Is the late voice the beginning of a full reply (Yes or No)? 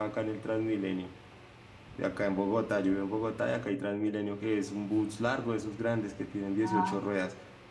No